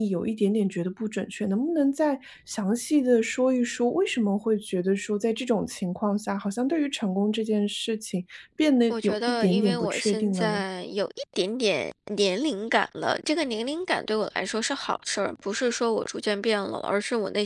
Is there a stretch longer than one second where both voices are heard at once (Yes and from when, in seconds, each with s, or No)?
Yes, from 8.9 s